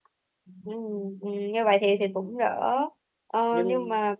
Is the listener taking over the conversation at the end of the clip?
No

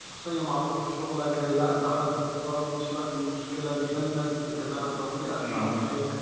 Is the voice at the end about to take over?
Yes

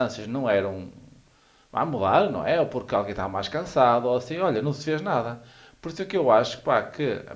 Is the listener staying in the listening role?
Yes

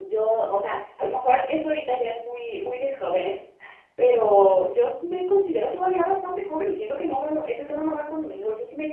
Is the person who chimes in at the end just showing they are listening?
Yes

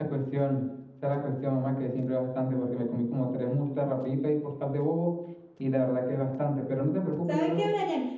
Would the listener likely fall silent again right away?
No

